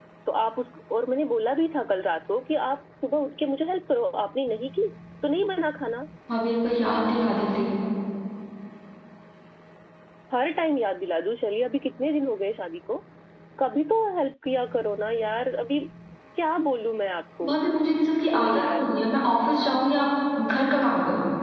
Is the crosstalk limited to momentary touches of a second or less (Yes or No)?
Yes